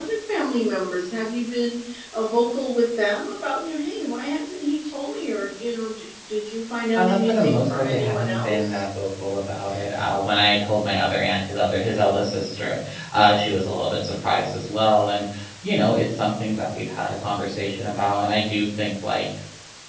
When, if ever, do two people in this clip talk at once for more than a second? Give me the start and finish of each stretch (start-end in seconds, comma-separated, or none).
7.0-8.8